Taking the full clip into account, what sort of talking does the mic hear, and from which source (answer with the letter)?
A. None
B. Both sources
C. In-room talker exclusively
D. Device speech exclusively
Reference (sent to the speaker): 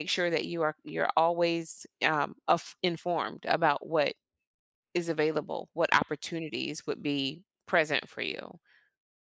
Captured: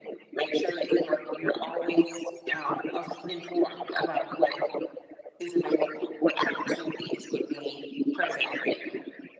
D